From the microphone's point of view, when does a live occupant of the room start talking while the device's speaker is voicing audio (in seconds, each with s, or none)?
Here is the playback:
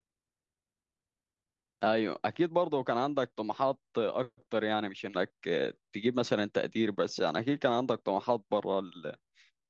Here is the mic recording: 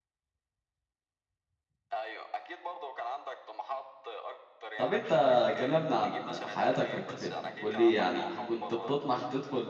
4.8 s